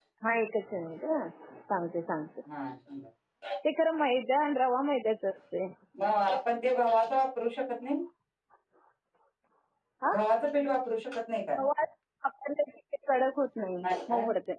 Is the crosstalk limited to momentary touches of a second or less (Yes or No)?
Yes